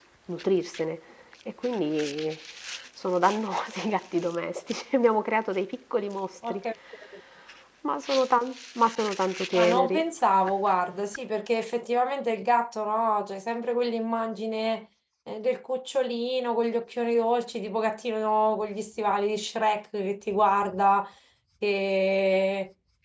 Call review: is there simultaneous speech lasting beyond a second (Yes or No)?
No